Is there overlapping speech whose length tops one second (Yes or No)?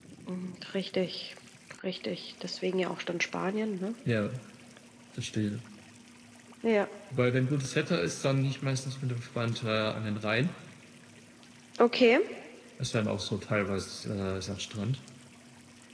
No